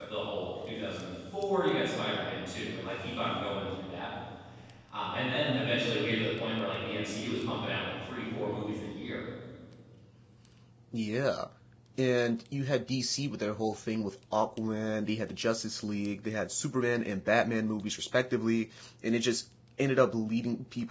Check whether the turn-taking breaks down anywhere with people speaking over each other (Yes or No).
No